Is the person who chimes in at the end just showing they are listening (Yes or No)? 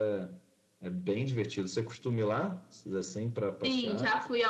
No